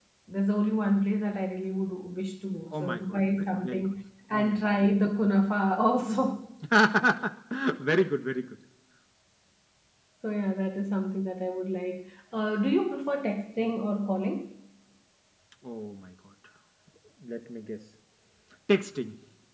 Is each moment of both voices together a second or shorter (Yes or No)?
No